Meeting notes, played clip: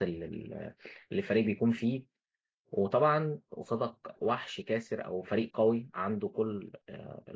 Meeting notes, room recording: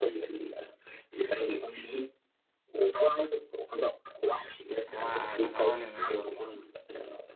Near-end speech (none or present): present